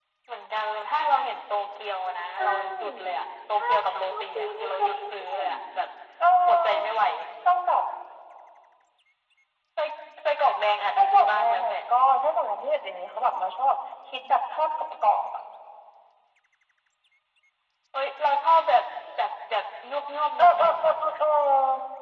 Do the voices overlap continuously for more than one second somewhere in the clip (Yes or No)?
Yes